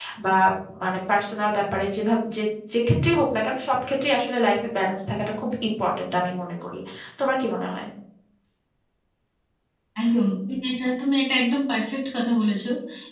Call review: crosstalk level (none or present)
none